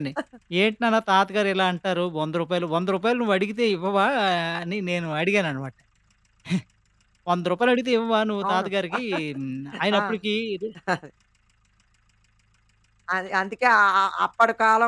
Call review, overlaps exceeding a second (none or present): none